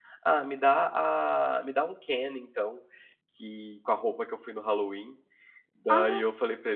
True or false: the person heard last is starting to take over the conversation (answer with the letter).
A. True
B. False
B